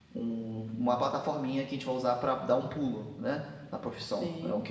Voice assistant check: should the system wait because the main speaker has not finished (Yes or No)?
Yes